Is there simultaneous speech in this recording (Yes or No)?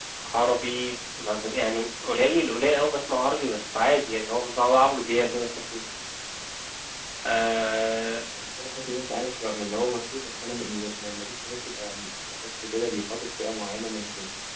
No